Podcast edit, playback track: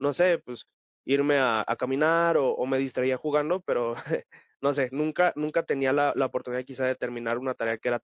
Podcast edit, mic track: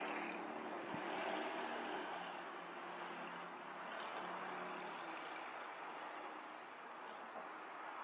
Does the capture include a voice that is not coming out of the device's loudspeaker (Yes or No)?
No